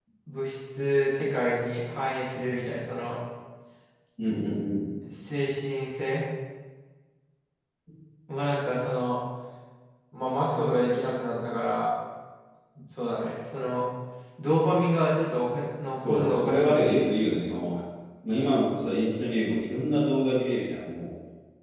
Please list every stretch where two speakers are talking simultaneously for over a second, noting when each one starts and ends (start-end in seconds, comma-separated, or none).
16.0-17.4